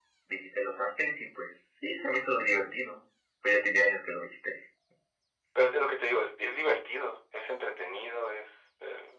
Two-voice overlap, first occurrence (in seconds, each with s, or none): none